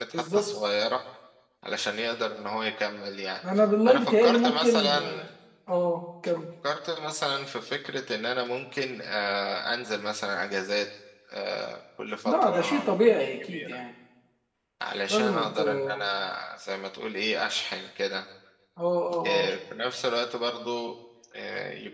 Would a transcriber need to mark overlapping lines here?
Yes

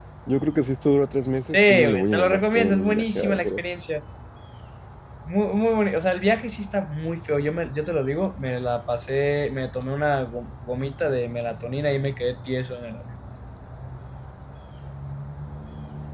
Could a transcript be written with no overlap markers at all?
No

